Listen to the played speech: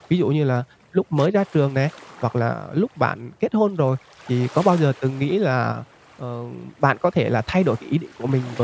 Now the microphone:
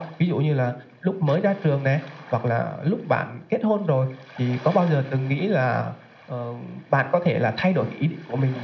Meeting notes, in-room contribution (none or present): none